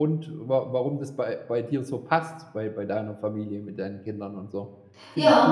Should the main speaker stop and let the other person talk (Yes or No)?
Yes